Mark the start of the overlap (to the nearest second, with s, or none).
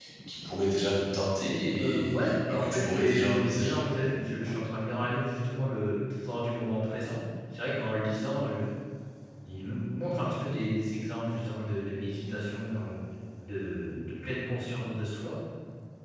2 s